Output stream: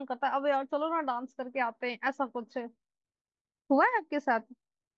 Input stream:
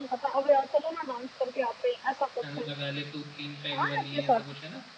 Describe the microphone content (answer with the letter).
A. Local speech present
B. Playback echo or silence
A